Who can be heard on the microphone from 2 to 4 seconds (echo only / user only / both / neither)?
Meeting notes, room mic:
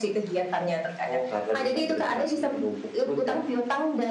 echo only